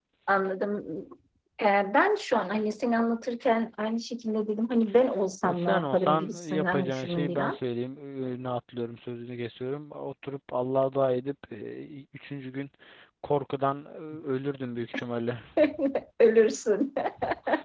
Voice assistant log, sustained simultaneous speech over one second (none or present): present